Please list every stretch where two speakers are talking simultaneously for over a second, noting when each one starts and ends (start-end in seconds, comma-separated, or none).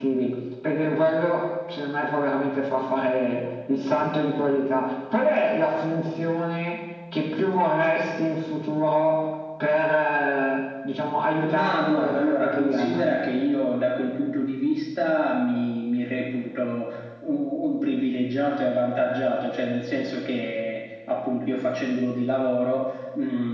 11.3-13.1